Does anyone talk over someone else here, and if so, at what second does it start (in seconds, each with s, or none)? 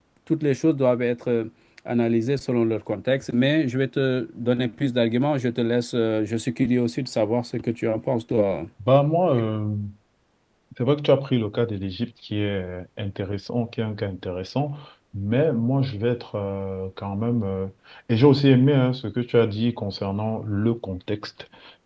none